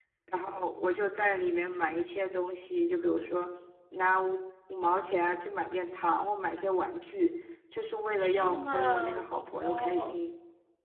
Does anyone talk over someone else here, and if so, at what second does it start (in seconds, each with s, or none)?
8.2 s